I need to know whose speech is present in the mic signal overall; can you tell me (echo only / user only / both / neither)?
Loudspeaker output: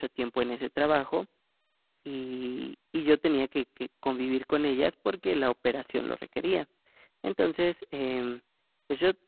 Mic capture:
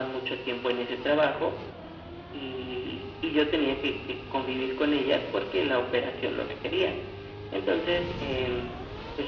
echo only